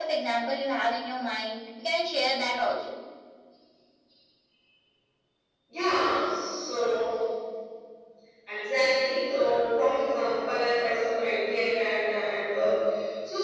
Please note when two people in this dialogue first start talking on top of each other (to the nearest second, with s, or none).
none